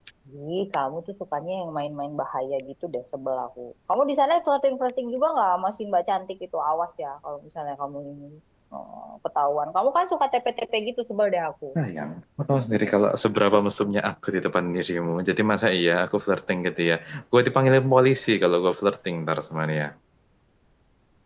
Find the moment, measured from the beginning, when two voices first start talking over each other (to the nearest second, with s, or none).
none